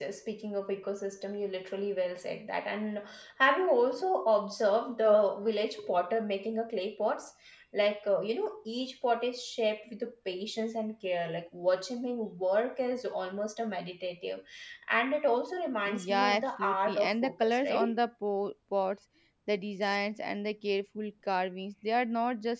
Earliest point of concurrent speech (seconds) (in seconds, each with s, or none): 15.8 s